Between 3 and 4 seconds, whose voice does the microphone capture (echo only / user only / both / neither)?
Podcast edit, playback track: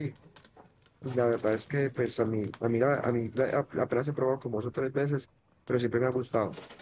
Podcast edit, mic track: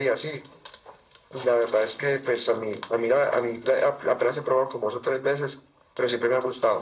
echo only